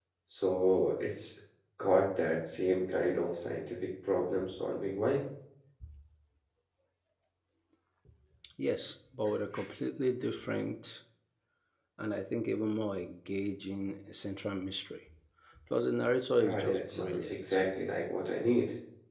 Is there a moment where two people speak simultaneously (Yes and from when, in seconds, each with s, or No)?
Yes, from 16.4 s